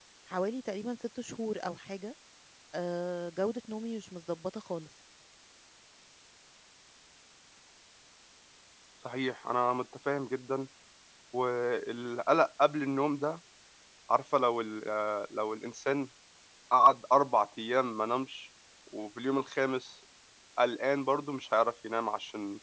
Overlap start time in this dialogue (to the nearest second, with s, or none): none